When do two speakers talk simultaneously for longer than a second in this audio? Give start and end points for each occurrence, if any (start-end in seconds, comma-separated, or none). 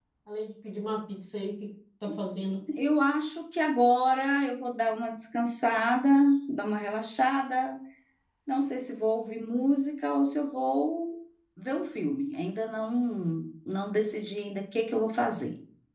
none